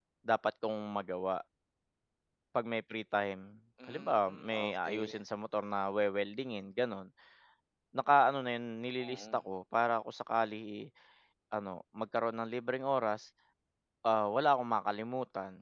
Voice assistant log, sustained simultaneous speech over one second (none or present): present